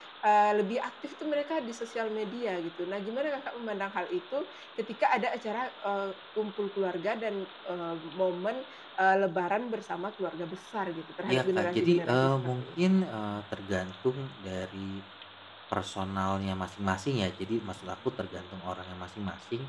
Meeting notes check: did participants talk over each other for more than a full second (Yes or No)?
Yes